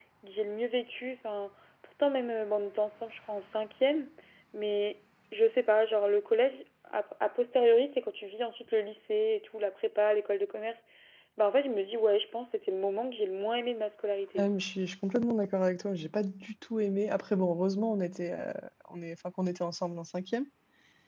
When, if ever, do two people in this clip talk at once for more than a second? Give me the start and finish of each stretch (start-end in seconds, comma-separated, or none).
none